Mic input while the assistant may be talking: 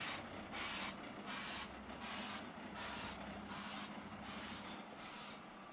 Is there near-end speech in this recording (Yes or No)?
No